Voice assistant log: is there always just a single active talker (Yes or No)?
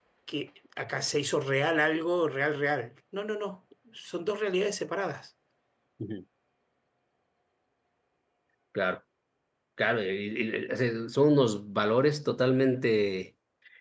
Yes